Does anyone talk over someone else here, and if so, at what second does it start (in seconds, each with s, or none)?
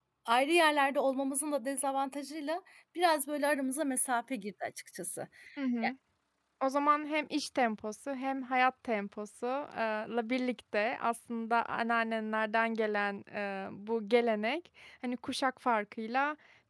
none